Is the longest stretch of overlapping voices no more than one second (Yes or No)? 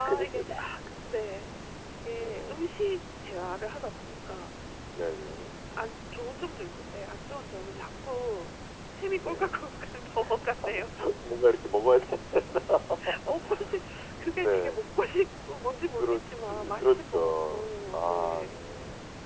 No